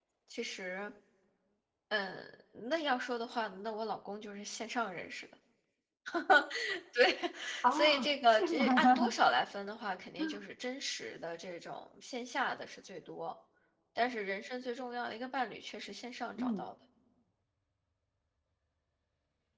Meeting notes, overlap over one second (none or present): present